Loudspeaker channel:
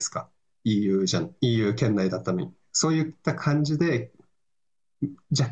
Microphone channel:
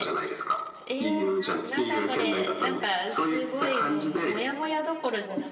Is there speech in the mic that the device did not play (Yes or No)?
Yes